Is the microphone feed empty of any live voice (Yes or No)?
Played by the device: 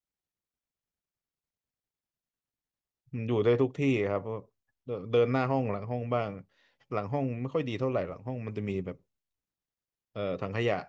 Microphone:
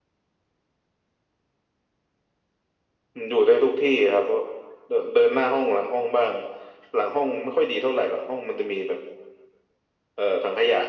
Yes